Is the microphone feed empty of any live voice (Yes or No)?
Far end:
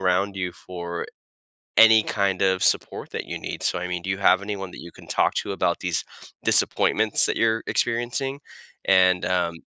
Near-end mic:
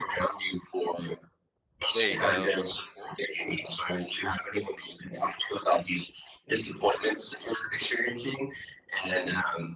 No